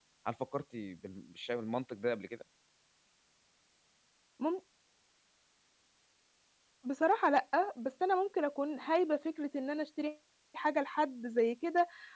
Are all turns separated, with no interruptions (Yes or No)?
Yes